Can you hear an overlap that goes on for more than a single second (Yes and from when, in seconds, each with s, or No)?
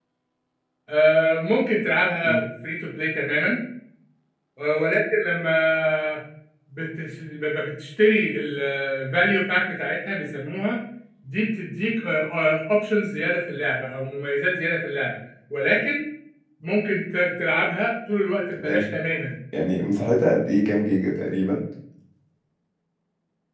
No